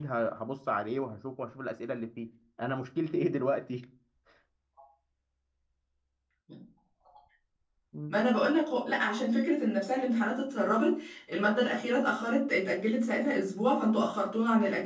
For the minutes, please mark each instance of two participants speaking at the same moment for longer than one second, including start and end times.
none

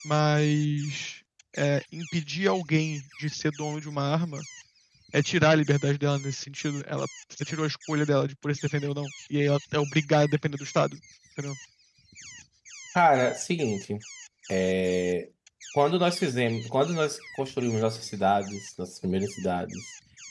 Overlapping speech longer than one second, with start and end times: none

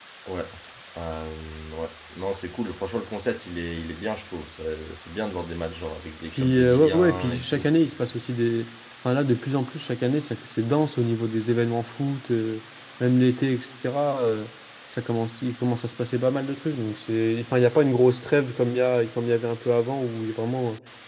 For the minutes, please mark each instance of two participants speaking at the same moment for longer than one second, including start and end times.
6.3-7.7

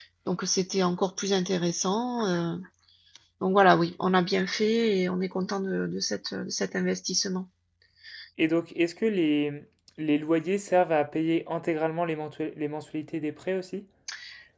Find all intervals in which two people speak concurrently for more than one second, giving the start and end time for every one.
none

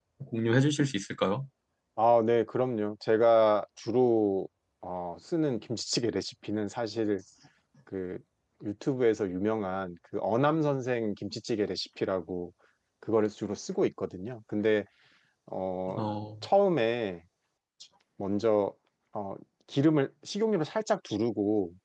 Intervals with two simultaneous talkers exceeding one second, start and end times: none

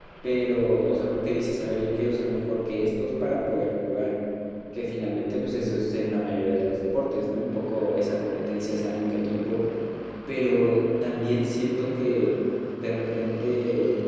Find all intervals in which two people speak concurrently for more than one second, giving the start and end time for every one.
none

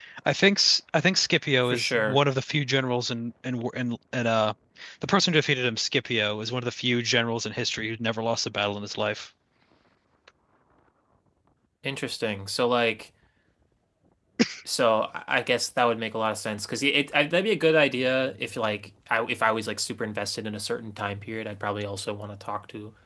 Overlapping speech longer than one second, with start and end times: none

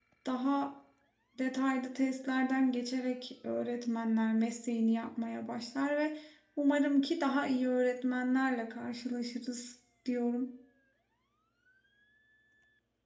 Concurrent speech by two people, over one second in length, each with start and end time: none

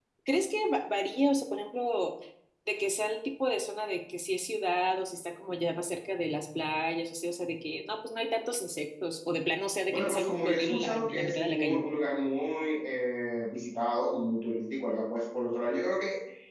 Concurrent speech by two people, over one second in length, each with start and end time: 9.9-11.8

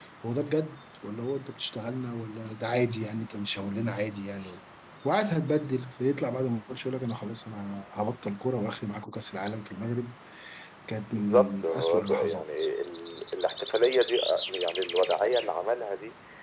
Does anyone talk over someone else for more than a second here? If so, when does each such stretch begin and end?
11.1-12.4

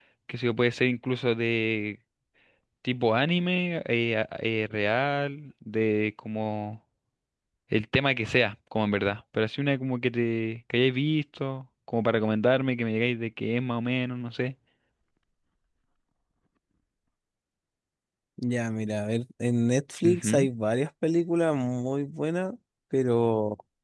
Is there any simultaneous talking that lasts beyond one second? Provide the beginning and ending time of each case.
none

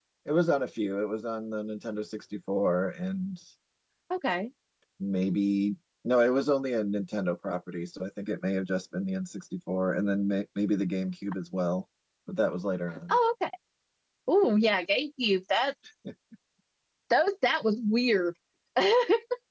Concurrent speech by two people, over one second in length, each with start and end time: none

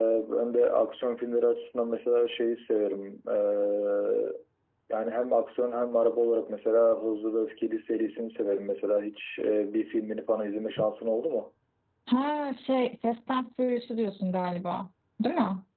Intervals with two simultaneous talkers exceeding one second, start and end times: none

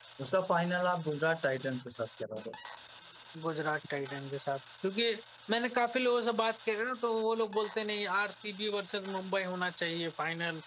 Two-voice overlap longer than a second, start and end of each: none

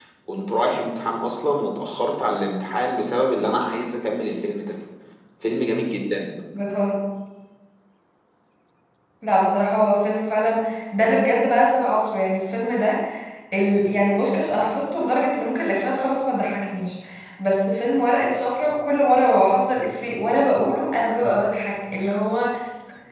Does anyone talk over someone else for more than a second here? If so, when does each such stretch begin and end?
none

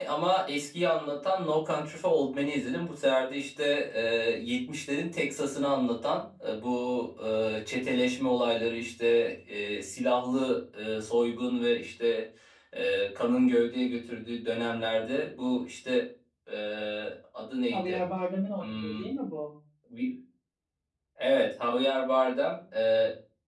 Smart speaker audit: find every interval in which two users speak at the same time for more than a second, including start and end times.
none

